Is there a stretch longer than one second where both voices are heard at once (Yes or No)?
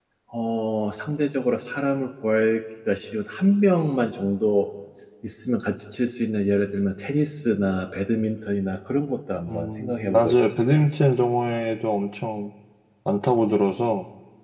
Yes